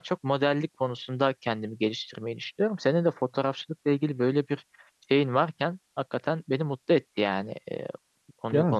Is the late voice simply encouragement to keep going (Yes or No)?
No